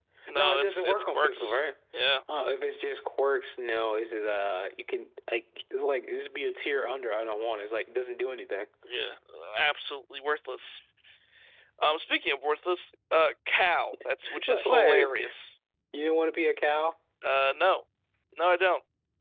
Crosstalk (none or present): present